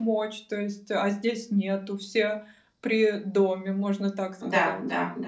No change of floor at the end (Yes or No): No